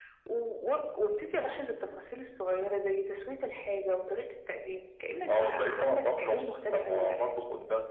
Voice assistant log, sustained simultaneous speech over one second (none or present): present